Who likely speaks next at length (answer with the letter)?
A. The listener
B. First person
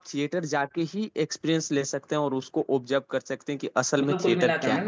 A